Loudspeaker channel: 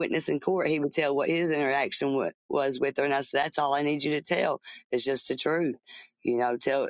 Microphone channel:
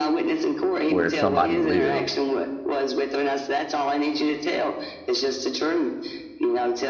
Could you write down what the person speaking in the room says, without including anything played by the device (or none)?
where somebody lives